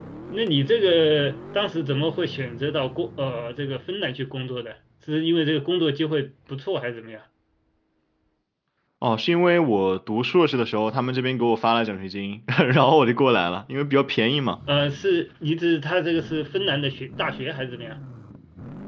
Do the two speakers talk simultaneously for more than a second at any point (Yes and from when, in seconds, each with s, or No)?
No